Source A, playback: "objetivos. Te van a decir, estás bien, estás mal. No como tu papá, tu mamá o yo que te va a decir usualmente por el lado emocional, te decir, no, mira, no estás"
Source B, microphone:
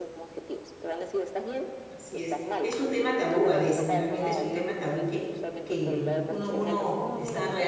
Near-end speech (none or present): present